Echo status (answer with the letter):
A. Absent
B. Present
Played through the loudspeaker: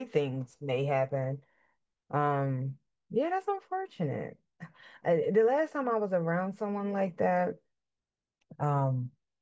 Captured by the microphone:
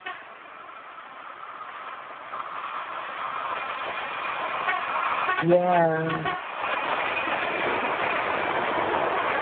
A